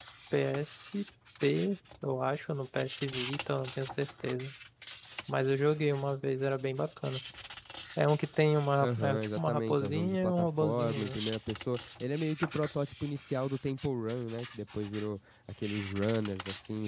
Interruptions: present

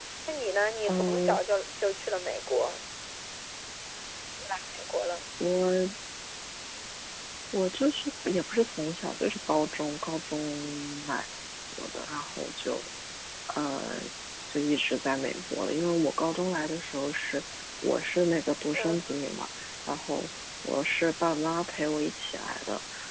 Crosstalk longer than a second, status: none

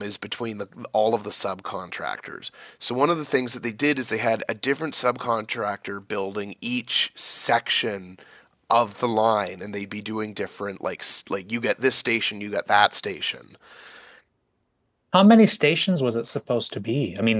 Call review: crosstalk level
none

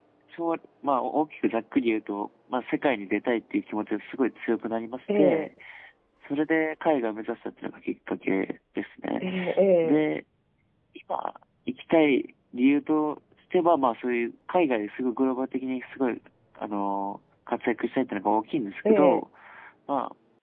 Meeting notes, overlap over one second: none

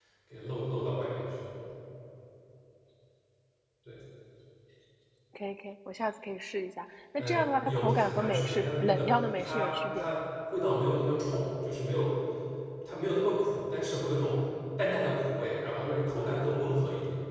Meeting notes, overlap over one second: present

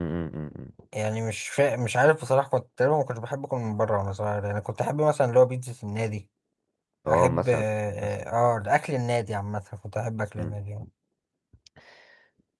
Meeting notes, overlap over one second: none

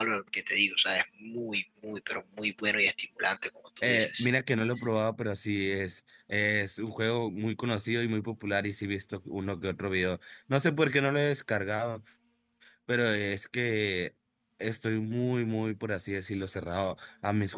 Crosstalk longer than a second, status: none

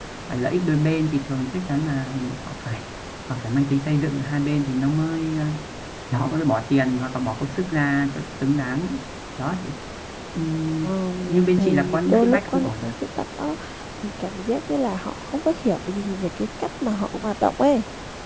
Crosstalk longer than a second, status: present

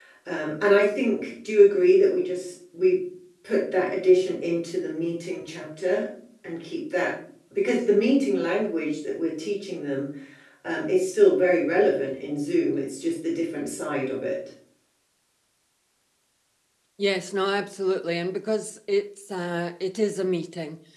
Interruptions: none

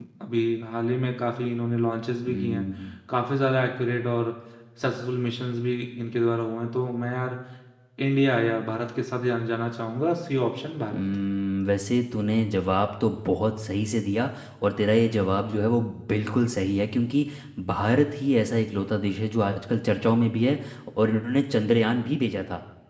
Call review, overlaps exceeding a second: none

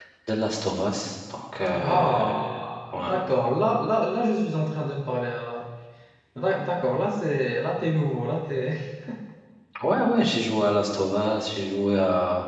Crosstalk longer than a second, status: none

